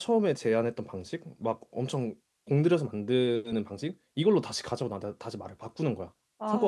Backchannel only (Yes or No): No